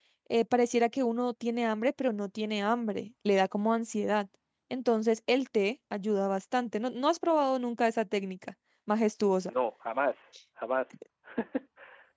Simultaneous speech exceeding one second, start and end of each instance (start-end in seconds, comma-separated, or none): none